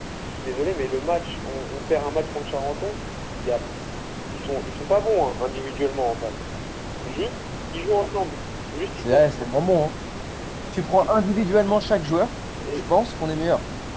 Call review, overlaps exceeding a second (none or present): none